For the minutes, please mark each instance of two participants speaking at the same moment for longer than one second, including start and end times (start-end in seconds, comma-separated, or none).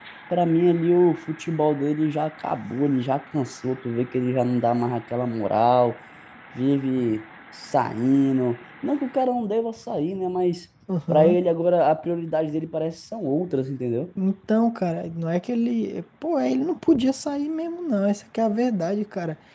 none